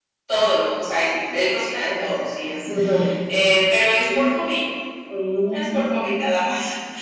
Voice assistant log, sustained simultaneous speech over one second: none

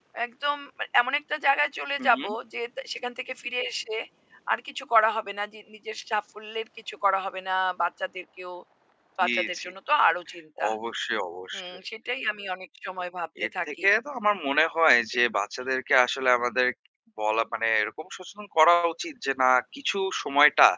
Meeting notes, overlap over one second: none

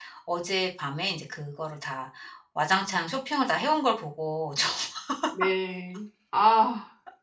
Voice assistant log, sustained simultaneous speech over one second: none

